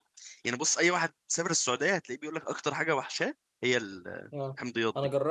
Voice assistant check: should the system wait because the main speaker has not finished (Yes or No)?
No